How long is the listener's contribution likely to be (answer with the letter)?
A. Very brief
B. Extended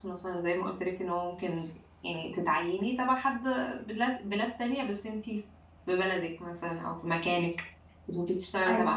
A